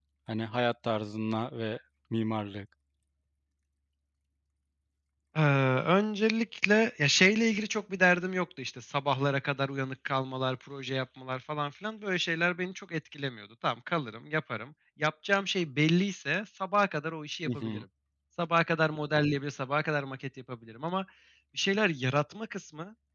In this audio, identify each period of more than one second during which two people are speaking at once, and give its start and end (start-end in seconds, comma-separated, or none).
none